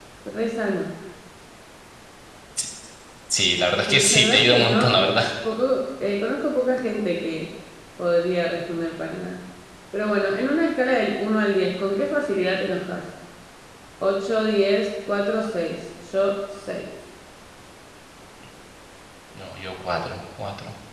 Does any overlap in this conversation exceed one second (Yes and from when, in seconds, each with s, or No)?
Yes, from 3.9 s